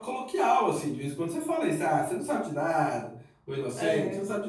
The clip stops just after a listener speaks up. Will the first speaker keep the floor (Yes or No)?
Yes